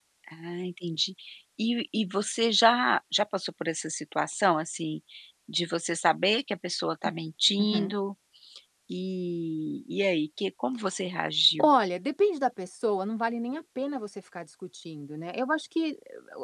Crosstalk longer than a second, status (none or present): none